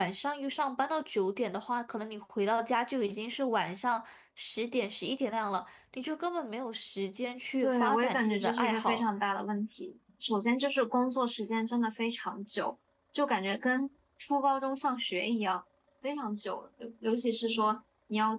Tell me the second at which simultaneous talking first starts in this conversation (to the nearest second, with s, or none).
8 s